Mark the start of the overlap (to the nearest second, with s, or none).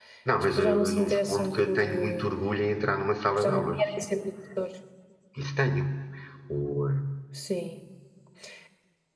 1 s